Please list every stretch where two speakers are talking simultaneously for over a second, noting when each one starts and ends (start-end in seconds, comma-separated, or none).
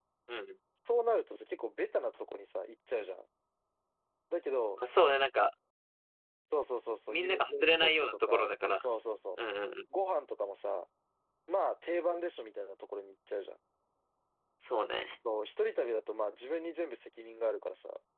7.1-8.8